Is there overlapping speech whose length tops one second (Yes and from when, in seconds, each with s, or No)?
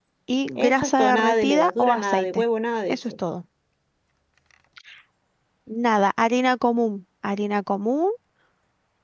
Yes, from 0.6 s